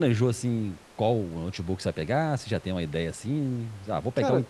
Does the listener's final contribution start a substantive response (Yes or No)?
No